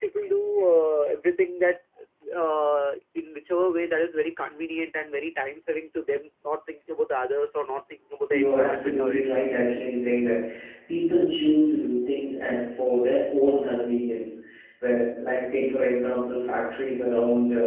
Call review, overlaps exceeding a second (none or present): present